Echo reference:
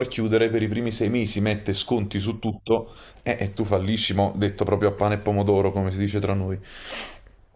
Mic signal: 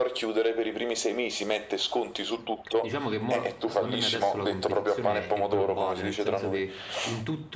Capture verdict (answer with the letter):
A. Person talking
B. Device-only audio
A